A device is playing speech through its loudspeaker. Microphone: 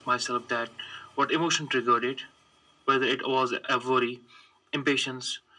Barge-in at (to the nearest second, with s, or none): none